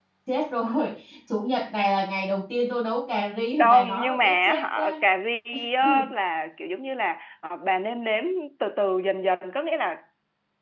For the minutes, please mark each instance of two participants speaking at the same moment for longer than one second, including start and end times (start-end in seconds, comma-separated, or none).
3.6-5.0